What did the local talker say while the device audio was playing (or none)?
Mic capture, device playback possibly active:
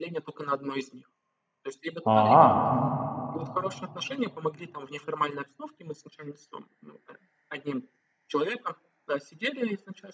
А, мгм.